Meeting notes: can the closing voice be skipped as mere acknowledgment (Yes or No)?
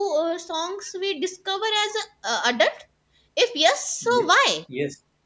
No